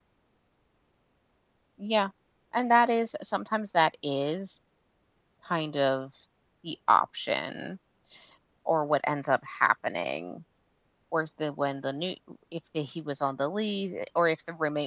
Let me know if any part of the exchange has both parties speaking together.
No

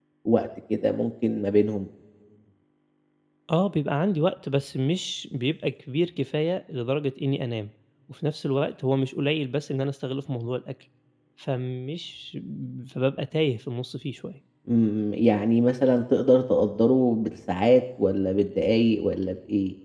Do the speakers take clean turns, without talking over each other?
Yes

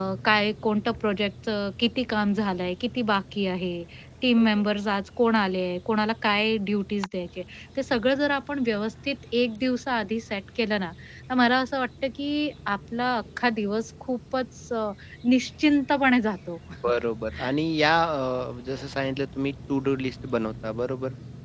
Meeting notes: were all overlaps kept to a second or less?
Yes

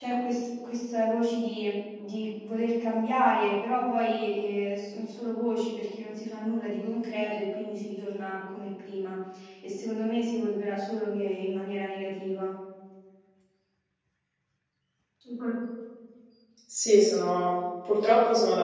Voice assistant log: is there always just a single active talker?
Yes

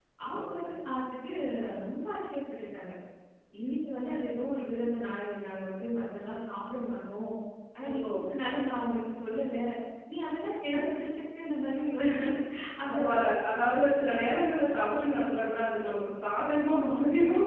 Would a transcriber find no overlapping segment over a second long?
Yes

